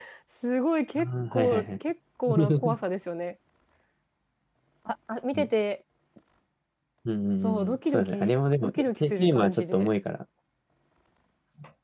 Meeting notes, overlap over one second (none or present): present